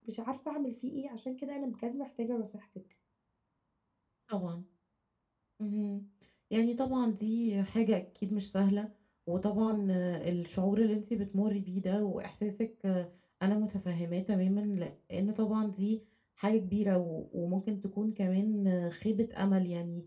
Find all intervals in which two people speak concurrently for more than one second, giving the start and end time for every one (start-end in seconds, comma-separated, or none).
none